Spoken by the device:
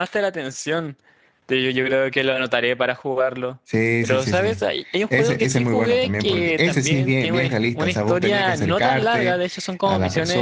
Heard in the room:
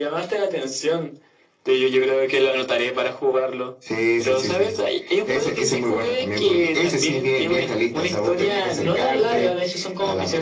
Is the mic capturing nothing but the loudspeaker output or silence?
Yes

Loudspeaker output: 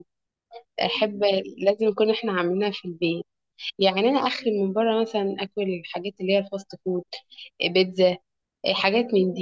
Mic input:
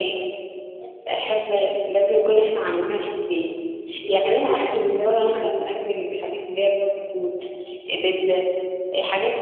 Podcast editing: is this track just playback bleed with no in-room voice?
No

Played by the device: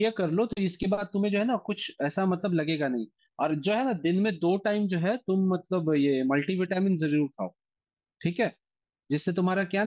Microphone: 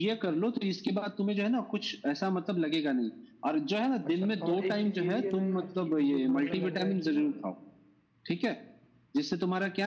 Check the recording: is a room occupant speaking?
Yes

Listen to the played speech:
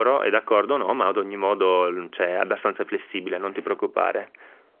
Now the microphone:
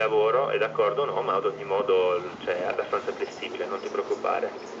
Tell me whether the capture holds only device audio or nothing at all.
Yes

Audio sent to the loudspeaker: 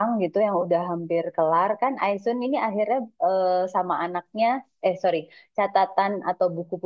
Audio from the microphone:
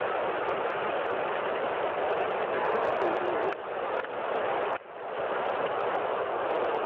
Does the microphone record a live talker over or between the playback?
Yes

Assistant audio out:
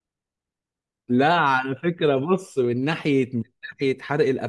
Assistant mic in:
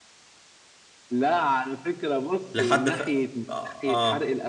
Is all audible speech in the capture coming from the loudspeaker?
No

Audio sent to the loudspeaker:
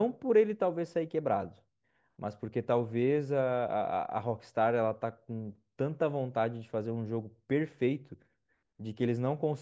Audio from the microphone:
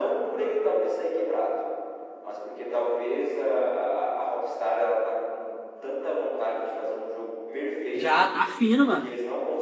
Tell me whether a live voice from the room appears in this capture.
Yes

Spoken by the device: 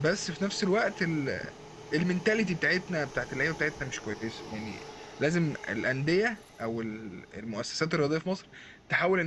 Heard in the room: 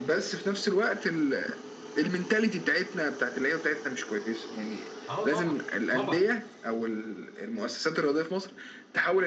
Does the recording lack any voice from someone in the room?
No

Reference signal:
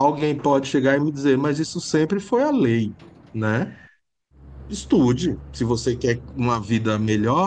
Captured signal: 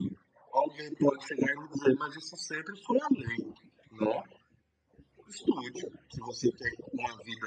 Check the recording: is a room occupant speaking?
No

